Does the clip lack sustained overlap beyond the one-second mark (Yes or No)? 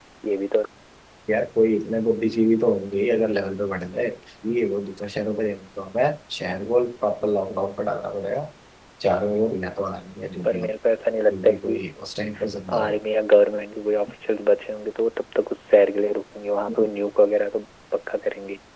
Yes